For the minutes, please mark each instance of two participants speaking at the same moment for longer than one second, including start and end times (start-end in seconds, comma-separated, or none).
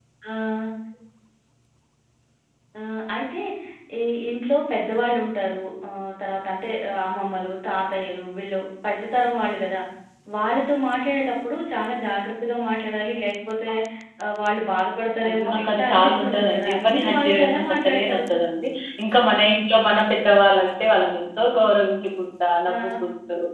15.2-18.2